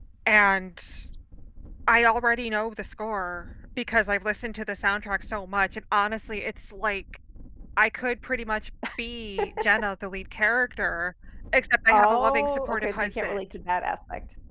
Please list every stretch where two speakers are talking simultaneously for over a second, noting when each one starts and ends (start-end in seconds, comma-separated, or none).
11.9-13.4